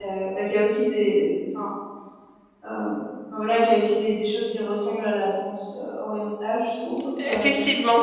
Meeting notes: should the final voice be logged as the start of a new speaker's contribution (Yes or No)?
Yes